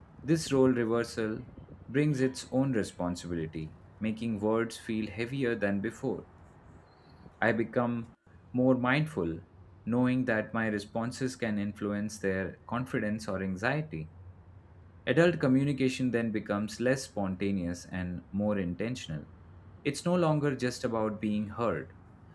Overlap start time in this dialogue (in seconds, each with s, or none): none